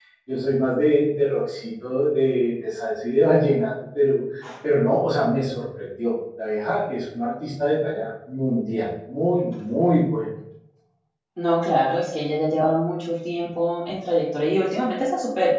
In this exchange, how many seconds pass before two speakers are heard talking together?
none

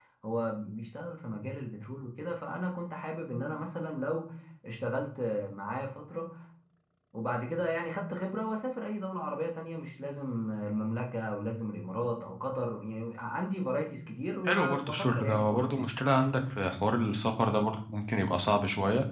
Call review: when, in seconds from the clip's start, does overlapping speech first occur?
14 s

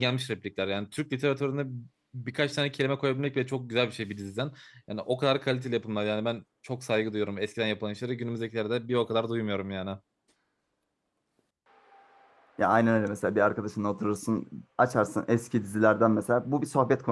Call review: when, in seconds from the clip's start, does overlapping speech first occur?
none

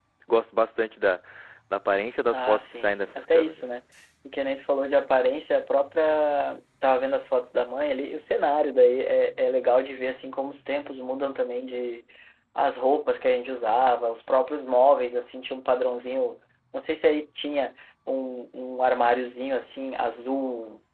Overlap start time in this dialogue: 2 s

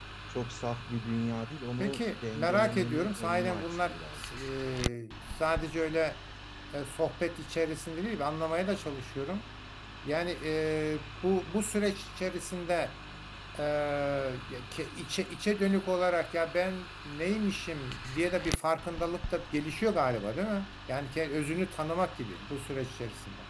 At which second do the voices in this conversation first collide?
2 s

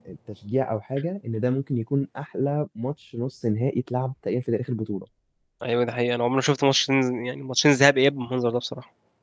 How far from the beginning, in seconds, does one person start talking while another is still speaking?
none

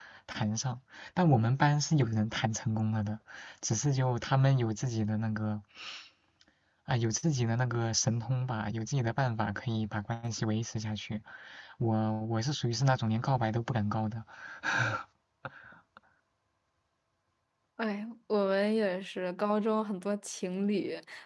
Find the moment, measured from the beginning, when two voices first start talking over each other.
none

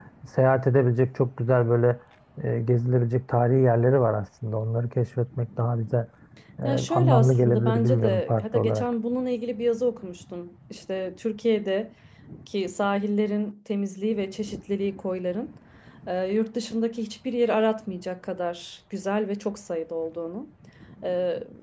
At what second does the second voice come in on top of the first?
7 s

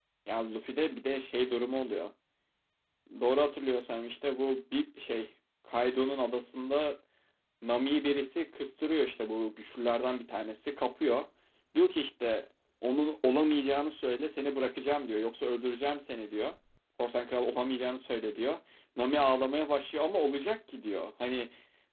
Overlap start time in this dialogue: none

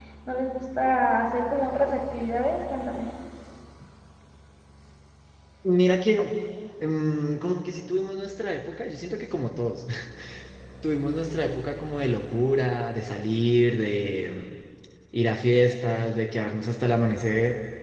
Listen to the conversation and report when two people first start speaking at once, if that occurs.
none

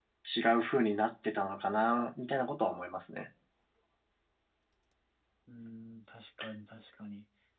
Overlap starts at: none

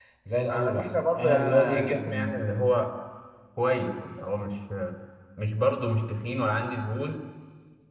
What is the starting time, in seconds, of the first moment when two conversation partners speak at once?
1 s

